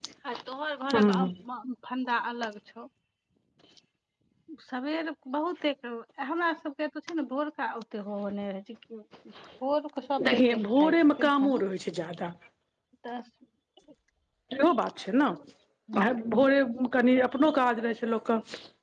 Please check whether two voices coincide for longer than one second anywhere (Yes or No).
Yes